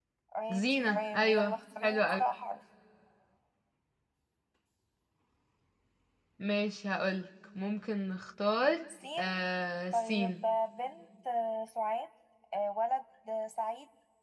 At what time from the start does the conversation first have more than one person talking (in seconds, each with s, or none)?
0.5 s